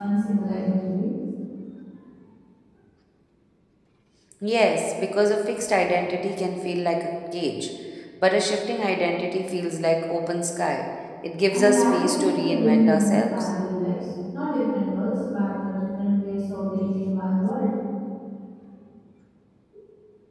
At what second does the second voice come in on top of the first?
11.5 s

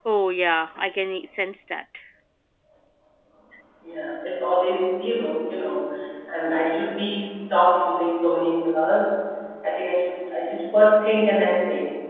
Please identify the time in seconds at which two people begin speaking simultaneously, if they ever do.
none

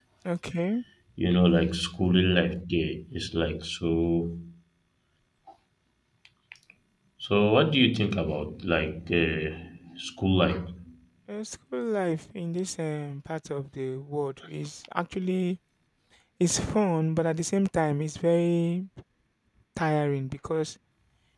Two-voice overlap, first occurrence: none

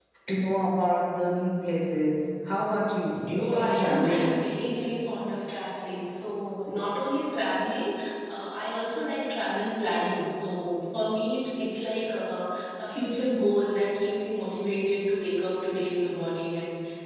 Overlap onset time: 3.1 s

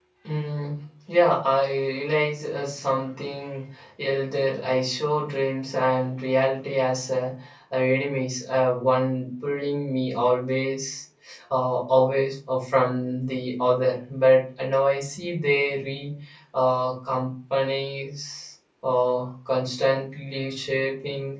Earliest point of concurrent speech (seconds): none

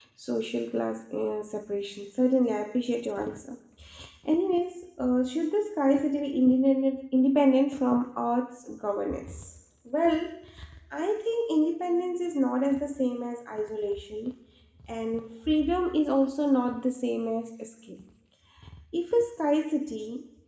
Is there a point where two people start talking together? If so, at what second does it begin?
none

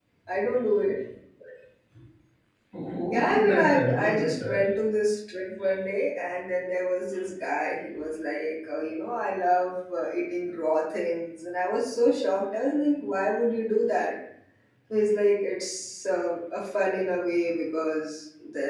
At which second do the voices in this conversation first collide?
3.1 s

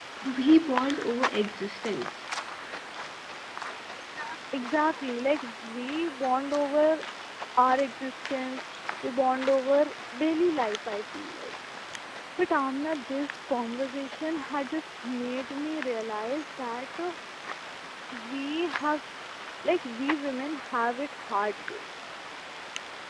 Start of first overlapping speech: none

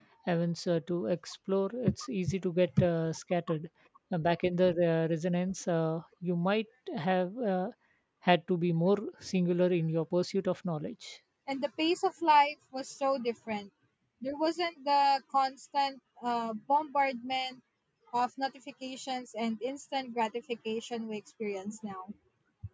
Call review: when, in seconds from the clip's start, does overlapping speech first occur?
none

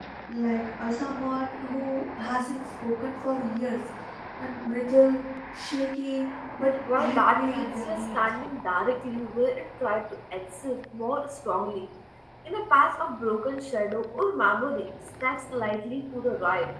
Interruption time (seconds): 6.8 s

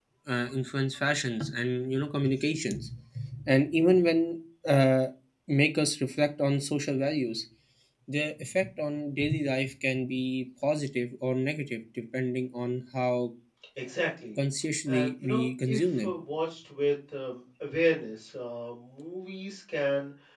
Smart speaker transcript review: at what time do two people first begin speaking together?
14.9 s

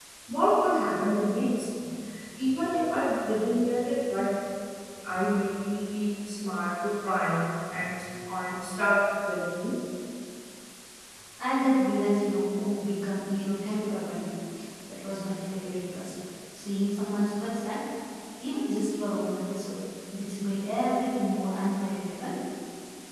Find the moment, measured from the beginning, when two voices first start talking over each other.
none

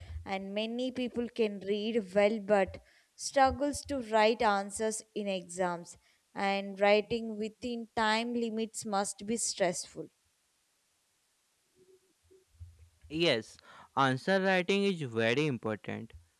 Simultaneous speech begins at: none

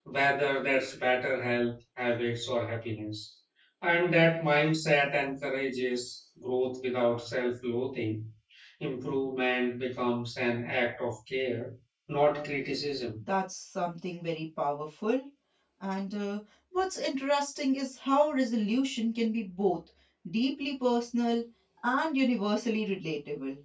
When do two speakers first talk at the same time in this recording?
none

